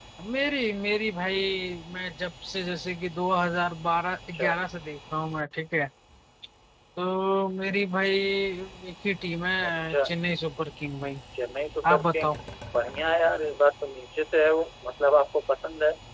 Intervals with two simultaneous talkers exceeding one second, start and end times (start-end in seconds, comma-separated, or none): none